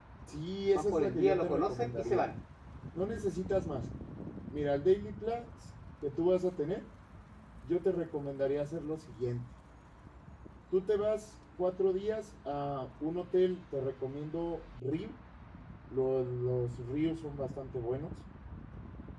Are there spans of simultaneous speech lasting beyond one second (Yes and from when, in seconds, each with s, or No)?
Yes, from 0.7 s